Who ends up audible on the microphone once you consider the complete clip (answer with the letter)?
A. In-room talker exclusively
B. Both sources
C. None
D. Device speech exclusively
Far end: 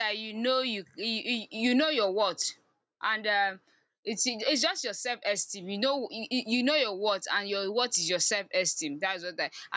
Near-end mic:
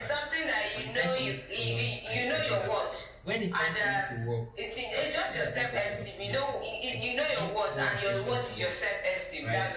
B